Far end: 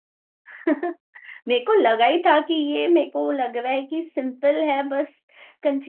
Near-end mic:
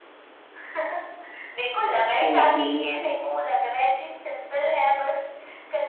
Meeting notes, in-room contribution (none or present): present